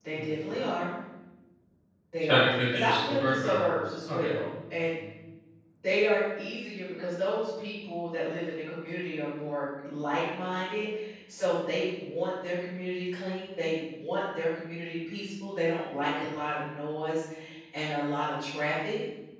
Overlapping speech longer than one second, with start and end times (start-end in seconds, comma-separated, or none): 2.2-3.6